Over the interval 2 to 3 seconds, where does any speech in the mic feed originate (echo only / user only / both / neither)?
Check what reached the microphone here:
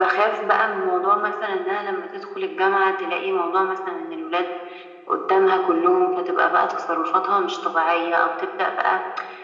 echo only